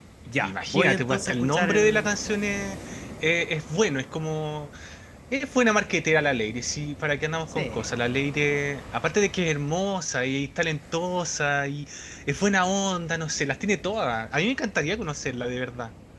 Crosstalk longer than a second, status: present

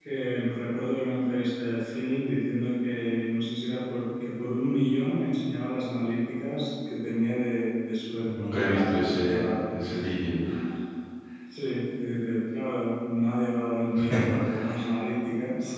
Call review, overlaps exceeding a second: present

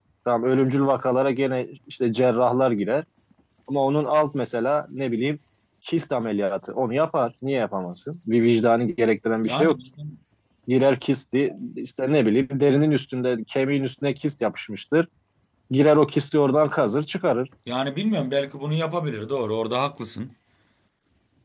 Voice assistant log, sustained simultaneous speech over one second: none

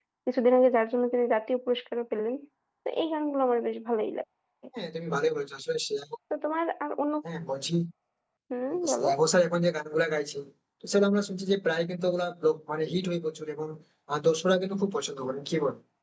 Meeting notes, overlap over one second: none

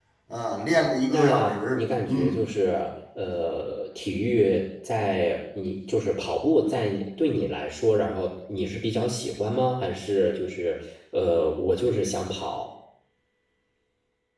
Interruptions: present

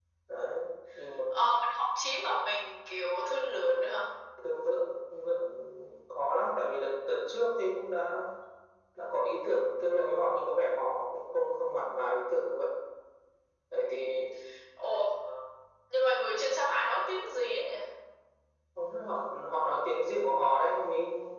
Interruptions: none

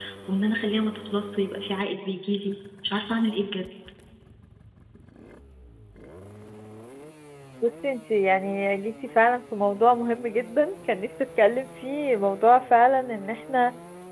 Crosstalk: none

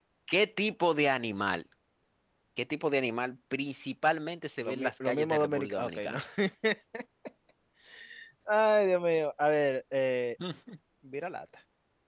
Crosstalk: present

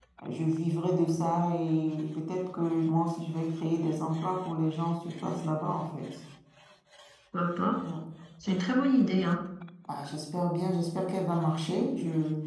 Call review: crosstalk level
none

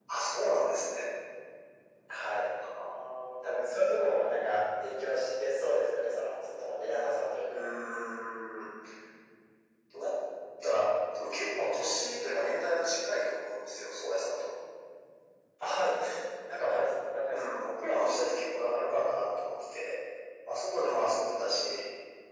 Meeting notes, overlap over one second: none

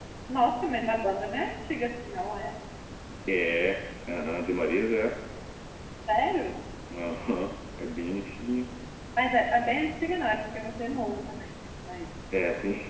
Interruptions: none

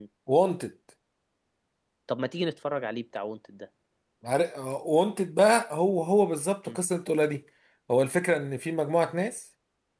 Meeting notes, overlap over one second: none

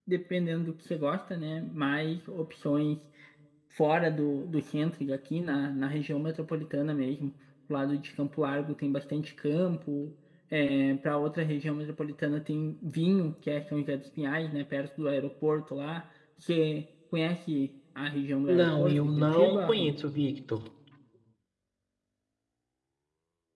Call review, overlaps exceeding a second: present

